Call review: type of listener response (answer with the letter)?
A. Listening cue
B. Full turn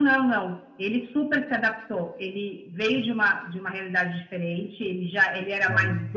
A